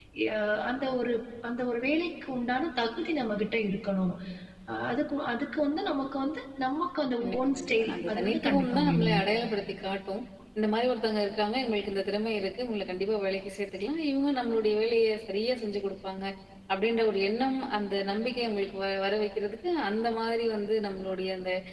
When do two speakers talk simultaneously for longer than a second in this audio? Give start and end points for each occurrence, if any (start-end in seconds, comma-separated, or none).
7.2-9.2